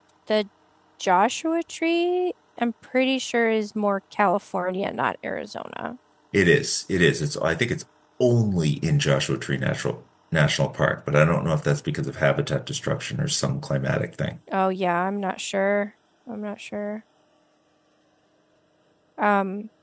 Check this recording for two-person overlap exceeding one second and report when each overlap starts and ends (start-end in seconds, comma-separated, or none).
none